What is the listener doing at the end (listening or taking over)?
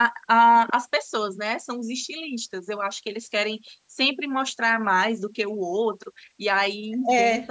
taking over